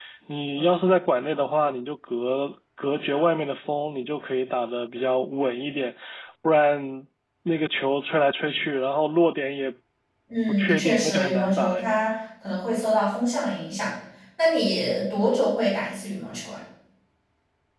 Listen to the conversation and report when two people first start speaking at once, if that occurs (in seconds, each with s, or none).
10.5 s